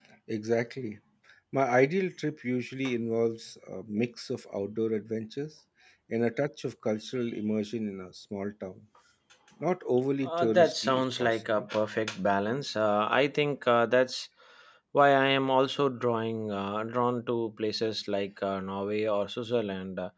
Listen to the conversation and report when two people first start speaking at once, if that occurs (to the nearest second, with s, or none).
10 s